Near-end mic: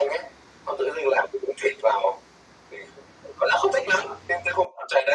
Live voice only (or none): none